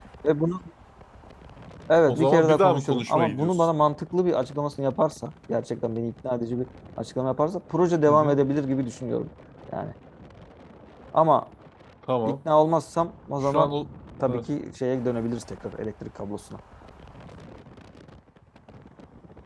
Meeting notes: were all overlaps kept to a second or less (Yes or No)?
No